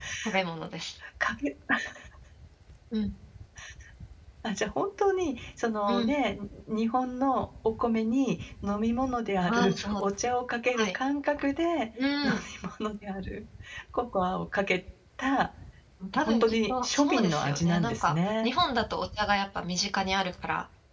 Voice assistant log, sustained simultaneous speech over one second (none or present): present